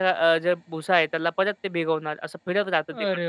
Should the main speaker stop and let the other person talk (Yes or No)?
Yes